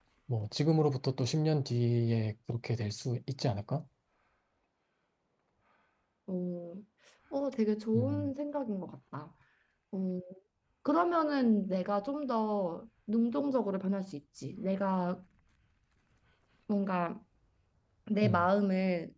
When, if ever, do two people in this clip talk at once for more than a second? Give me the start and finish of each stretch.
none

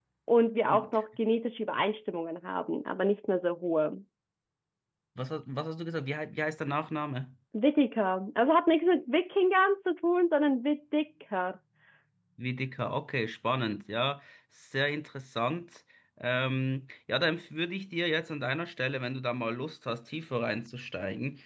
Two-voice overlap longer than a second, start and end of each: none

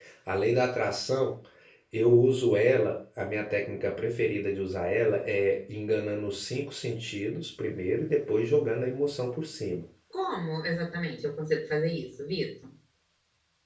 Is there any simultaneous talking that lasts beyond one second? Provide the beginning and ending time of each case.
none

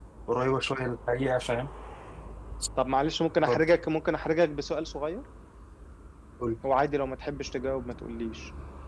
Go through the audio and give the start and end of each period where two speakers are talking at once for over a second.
none

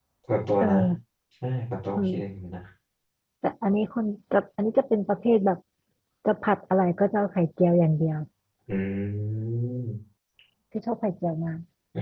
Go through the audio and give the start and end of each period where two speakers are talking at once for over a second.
none

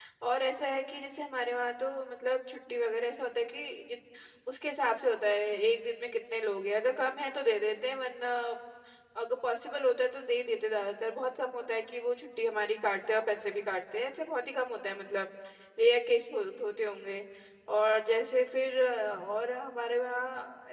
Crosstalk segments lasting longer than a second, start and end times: none

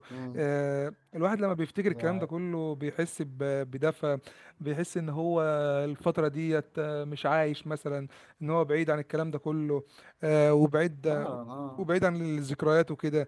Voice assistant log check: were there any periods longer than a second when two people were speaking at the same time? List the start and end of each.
none

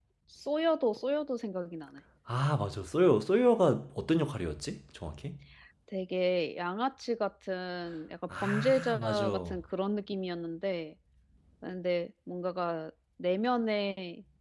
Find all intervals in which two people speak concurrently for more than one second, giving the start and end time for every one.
8.4-9.6

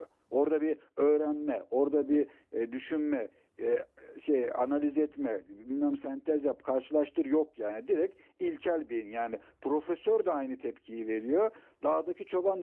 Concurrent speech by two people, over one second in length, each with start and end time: none

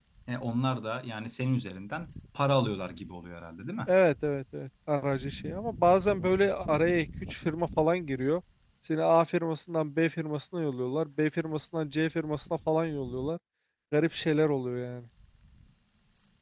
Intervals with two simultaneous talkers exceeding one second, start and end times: none

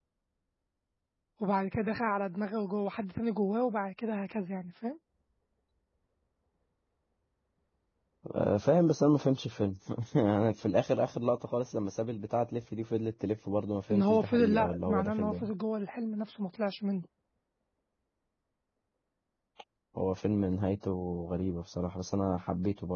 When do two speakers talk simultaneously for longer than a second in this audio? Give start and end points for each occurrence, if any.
13.9-15.4

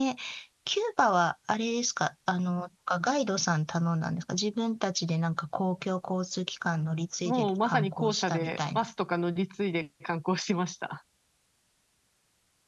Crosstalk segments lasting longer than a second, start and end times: 7.2-8.8

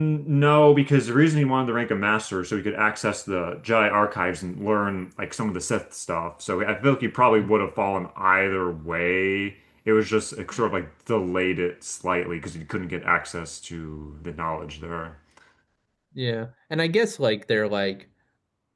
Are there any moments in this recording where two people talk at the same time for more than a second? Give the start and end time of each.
none

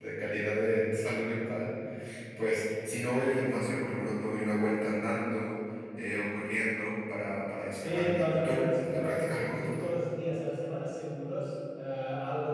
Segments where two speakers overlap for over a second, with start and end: 7.7-9.9

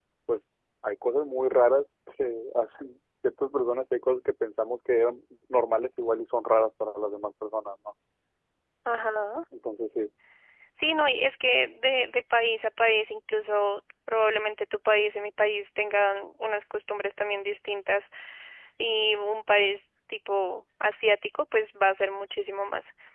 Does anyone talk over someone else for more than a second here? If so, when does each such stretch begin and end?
none

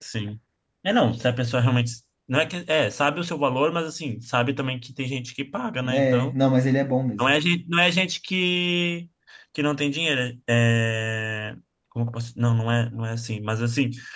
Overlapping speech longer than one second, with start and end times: none

